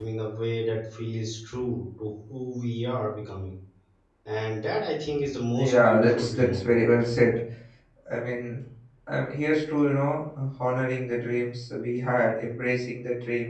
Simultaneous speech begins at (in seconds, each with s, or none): 5.6 s